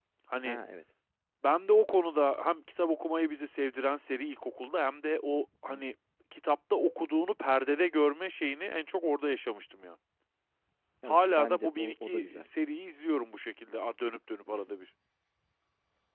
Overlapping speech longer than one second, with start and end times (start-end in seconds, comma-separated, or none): 11.1-12.5